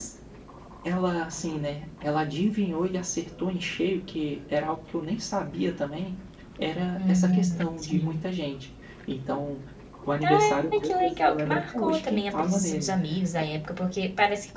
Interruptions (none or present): present